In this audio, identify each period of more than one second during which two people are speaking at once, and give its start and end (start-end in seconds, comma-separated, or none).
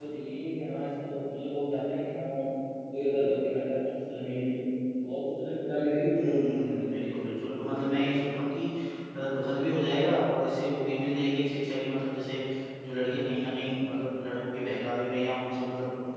6.2-7.8